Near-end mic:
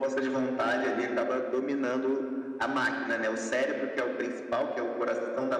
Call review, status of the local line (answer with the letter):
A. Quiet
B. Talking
A